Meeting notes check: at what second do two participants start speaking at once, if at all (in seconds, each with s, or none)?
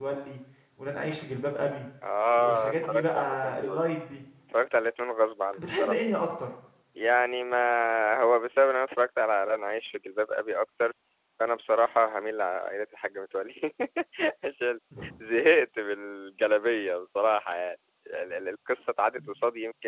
2.3 s